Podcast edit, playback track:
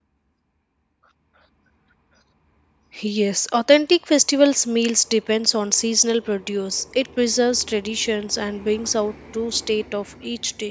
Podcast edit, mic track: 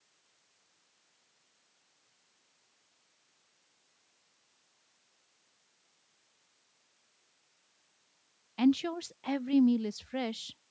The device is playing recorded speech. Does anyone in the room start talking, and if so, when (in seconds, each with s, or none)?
8.6 s